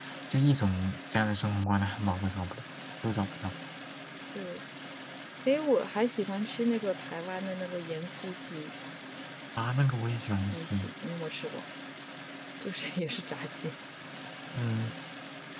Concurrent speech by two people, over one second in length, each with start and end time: none

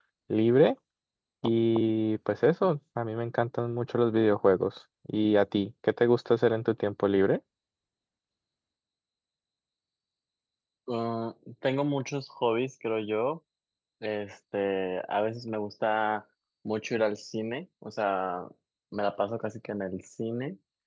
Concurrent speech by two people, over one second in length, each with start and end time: none

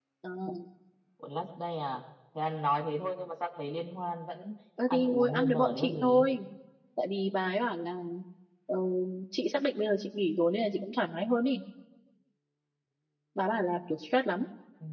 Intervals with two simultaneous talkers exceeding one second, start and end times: 4.9-6.3

